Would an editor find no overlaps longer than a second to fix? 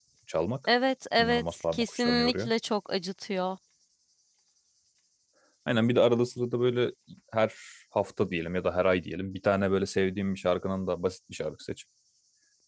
No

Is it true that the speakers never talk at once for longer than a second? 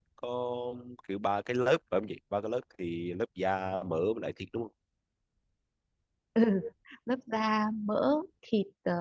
Yes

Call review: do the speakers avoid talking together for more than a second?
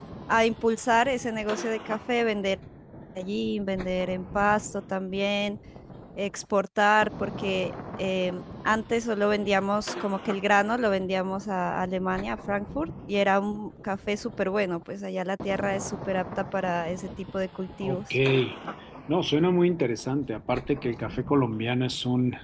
Yes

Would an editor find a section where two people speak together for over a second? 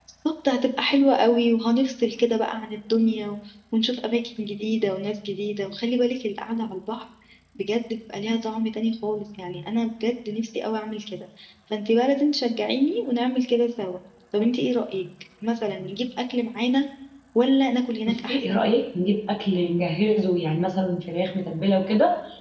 No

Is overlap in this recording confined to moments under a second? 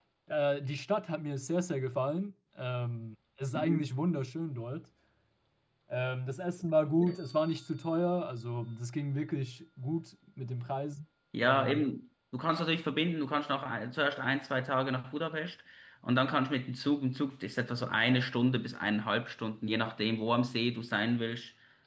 Yes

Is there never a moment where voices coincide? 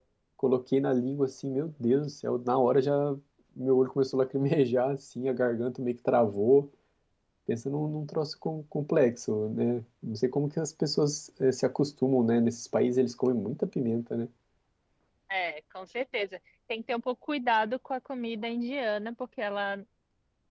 Yes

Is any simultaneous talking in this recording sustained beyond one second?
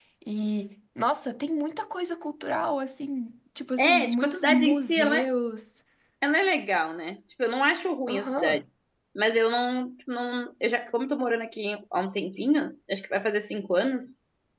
Yes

